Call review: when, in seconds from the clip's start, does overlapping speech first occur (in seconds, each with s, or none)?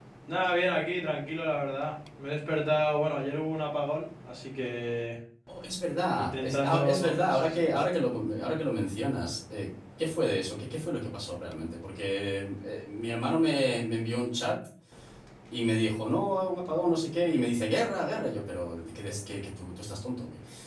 6.2 s